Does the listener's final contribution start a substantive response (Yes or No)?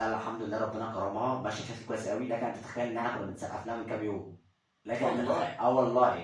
No